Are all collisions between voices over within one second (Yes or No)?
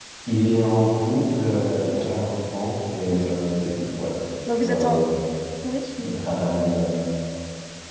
Yes